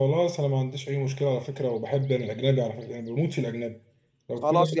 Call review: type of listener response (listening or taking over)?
taking over